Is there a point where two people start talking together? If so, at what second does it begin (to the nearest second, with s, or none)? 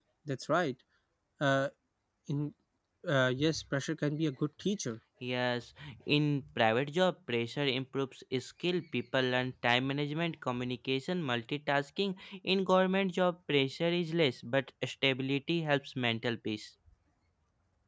none